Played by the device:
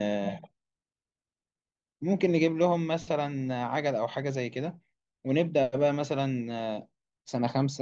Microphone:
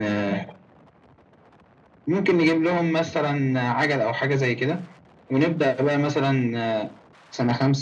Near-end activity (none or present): none